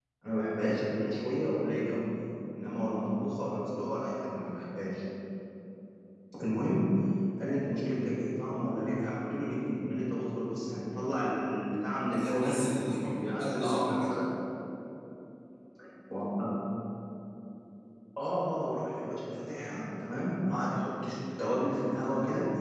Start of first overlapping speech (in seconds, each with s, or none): 12.1 s